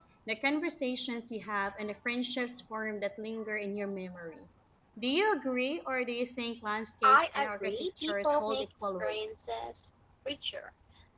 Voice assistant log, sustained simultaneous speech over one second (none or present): present